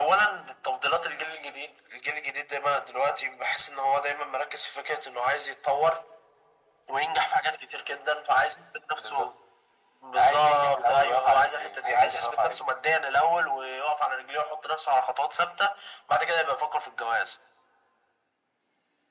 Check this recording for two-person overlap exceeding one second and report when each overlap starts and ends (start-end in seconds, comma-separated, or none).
10.2-12.7